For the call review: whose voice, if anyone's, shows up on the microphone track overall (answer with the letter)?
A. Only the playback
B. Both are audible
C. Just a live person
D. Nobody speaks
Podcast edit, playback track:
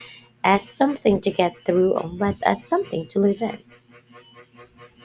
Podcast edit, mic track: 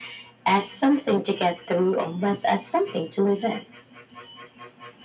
A